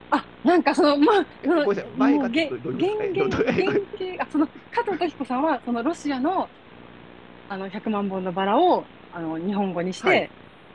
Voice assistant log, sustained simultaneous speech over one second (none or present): present